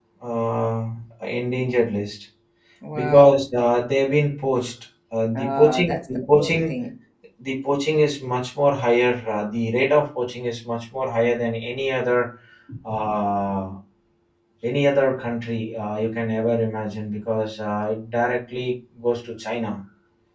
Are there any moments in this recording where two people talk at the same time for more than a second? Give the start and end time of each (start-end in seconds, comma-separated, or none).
5.3-6.7